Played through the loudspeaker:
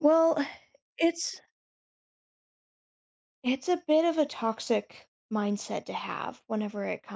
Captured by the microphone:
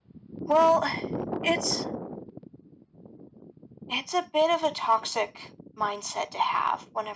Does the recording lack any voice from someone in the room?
Yes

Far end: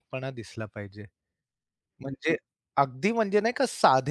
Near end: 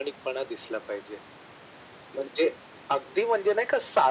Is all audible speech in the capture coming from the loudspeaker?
Yes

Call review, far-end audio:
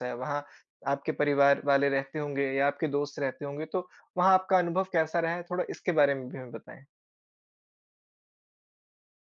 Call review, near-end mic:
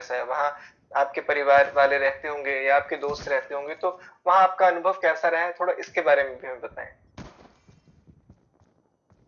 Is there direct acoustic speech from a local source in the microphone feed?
No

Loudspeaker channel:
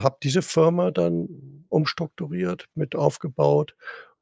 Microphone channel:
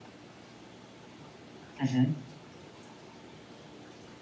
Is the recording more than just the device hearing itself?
Yes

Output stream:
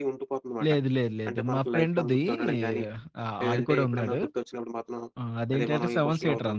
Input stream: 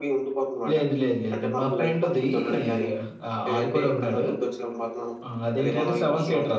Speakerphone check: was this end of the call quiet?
Yes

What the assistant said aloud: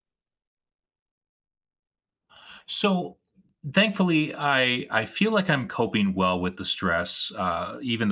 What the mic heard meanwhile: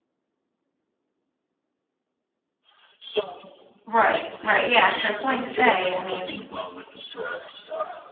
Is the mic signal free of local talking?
No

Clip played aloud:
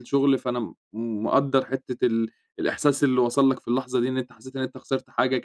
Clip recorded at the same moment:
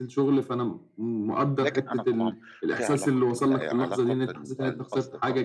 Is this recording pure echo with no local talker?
No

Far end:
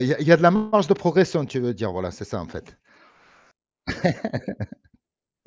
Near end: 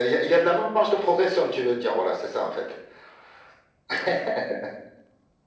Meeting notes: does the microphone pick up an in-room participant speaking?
No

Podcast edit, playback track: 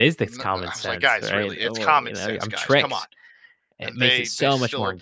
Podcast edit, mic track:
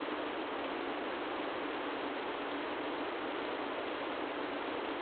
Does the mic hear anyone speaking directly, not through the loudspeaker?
No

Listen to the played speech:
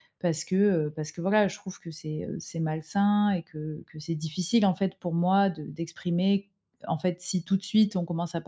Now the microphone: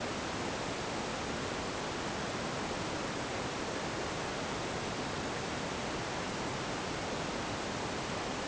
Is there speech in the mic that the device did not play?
No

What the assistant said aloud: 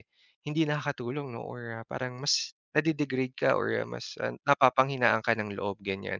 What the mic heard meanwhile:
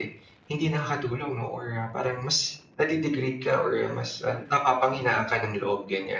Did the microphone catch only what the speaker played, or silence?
Yes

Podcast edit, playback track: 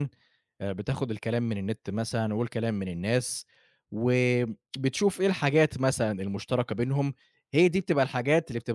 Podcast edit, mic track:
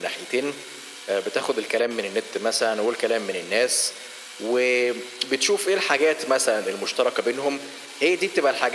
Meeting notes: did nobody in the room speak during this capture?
Yes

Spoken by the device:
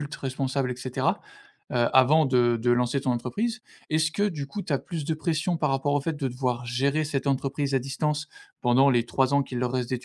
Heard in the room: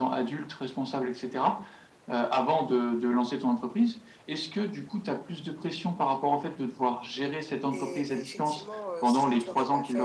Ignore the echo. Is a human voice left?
Yes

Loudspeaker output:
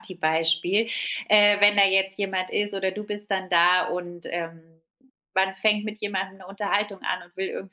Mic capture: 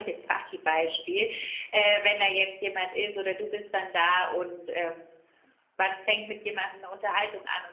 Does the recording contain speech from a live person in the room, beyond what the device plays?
No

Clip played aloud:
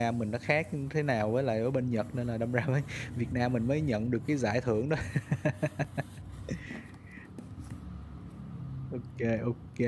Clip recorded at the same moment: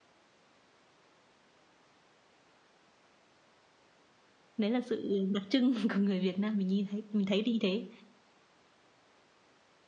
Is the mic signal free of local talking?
No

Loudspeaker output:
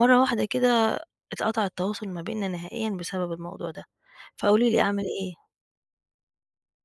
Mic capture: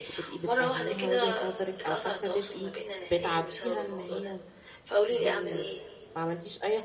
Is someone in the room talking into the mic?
Yes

